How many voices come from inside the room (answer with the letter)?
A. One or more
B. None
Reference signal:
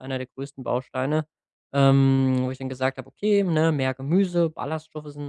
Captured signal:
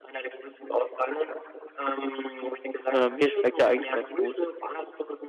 A